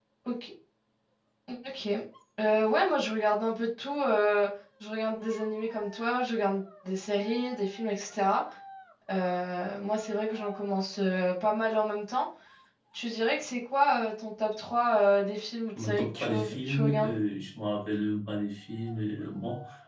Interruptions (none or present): present